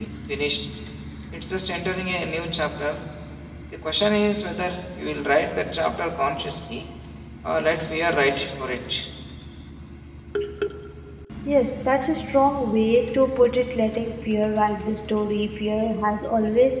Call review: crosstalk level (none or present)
none